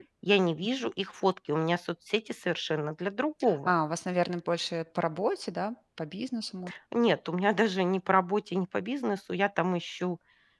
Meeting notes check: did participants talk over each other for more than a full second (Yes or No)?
No